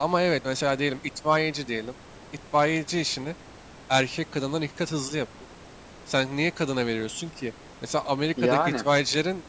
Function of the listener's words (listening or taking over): listening